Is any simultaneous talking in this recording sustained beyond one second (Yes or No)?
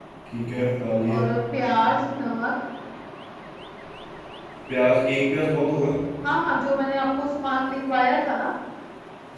No